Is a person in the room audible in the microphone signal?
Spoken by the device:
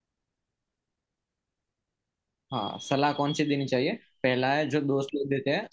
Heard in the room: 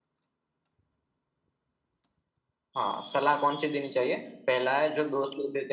No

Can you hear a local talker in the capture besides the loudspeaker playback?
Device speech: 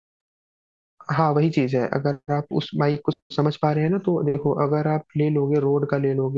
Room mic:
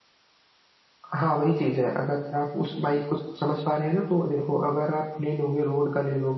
No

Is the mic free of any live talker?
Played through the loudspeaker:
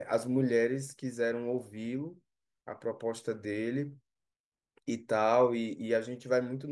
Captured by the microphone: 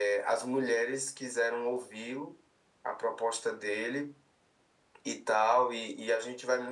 Yes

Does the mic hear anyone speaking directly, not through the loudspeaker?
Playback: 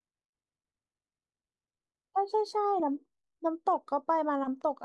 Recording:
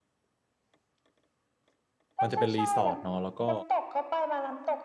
Yes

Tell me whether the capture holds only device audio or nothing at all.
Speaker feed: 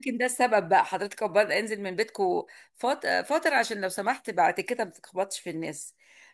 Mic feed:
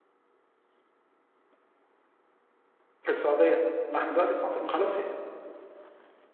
No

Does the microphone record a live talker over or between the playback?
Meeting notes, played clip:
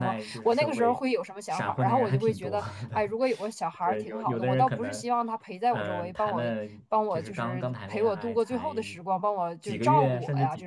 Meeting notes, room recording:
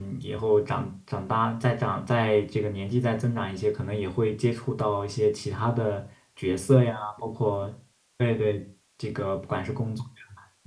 Yes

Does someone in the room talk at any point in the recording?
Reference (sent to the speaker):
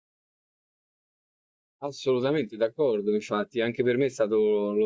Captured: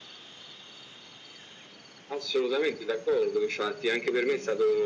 No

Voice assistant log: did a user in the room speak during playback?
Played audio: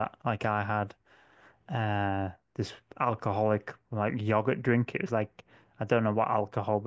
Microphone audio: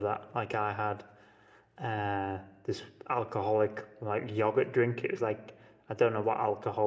No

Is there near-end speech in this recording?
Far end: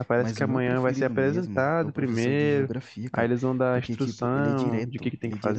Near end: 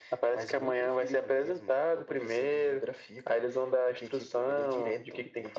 No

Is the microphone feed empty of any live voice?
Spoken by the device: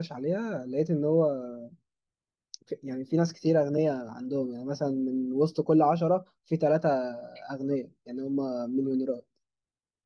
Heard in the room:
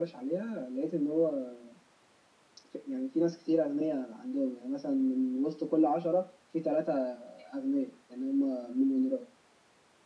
Yes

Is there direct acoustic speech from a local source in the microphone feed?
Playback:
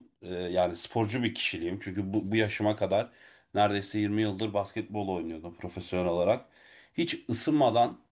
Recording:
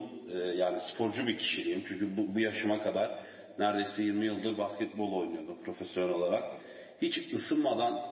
No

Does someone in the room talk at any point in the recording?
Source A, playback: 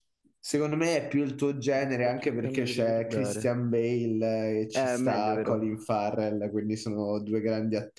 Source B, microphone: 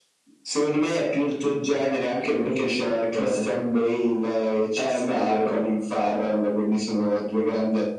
No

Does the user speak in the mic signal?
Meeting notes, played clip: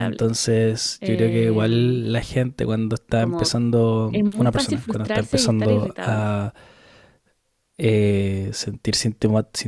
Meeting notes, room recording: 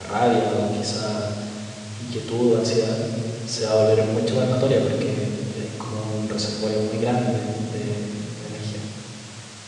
Yes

